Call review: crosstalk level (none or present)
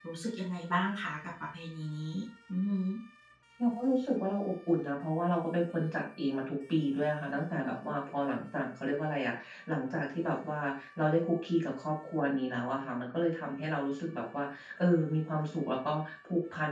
none